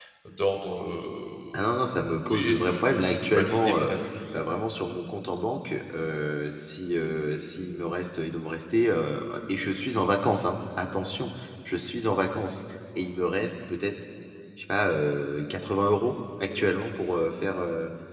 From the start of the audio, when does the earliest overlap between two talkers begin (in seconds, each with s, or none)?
2.2 s